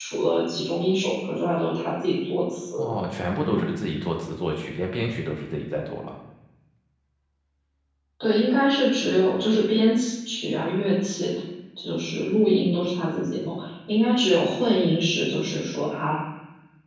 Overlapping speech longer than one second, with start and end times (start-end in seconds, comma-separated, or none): none